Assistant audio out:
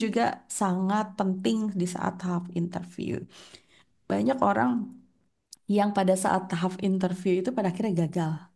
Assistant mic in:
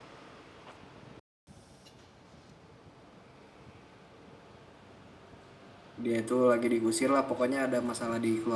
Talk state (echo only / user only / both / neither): user only